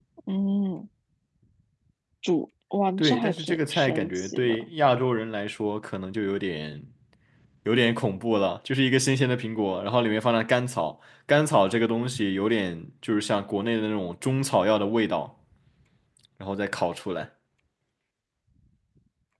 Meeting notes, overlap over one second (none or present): present